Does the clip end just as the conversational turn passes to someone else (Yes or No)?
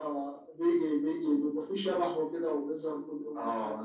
Yes